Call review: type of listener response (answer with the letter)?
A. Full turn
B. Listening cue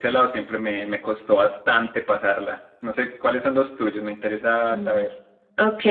A